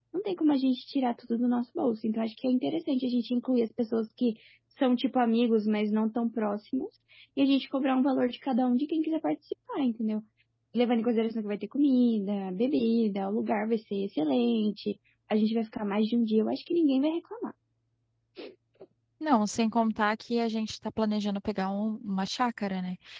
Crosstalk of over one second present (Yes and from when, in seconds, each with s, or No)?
No